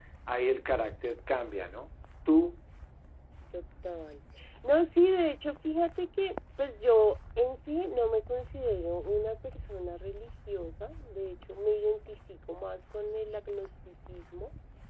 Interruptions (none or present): none